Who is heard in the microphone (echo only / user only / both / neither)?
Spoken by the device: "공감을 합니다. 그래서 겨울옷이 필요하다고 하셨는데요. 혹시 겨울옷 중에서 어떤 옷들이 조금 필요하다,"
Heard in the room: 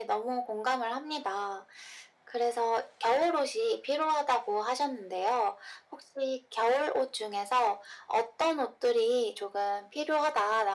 echo only